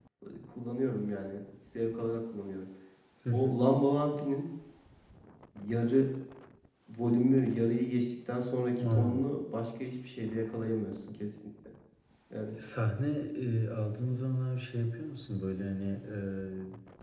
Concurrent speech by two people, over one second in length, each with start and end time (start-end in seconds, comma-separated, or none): none